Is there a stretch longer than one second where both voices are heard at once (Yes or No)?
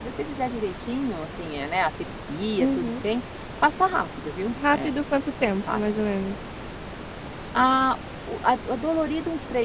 No